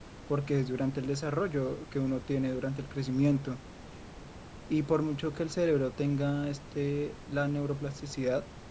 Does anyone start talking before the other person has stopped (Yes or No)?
No